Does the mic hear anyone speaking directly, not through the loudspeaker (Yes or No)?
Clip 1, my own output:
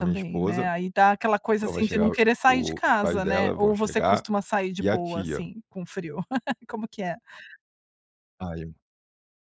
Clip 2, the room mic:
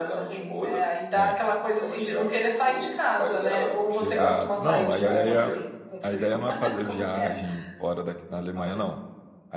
Yes